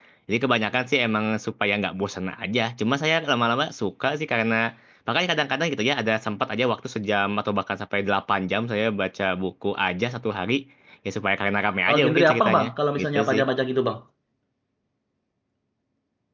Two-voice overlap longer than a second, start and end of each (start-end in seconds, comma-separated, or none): 11.9-13.4